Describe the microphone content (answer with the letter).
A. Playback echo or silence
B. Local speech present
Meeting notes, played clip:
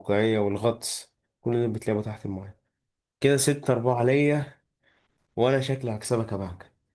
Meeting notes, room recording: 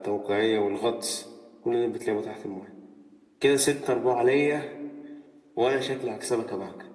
A